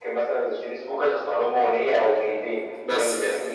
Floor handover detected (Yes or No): No